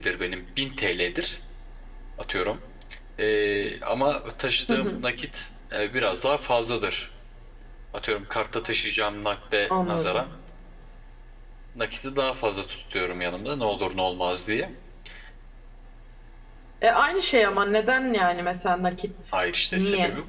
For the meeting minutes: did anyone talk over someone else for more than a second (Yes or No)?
No